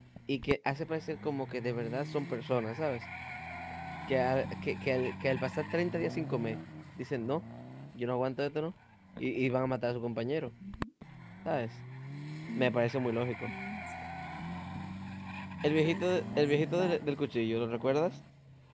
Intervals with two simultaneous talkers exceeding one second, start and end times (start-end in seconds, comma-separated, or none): 15.8-17.1